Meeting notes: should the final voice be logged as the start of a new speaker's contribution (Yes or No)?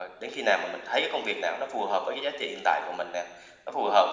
No